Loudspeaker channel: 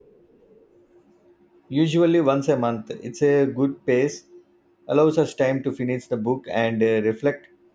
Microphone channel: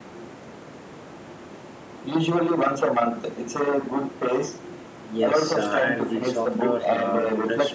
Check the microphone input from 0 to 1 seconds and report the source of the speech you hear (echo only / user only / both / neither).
neither